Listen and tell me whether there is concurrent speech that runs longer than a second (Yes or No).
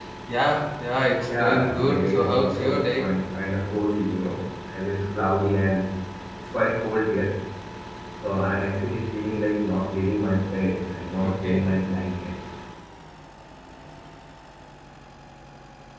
Yes